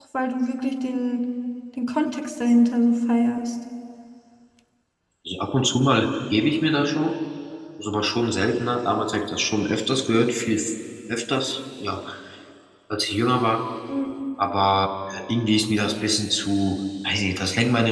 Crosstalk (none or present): none